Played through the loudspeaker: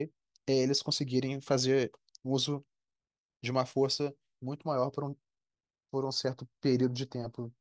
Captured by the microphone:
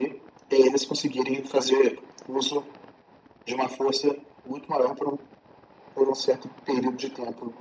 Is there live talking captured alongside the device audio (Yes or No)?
No